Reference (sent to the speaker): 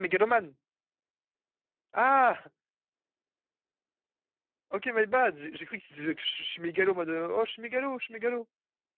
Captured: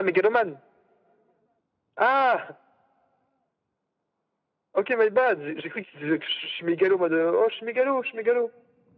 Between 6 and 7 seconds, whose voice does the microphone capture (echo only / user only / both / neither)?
echo only